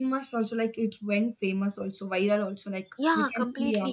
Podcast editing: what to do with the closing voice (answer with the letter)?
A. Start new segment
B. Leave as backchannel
A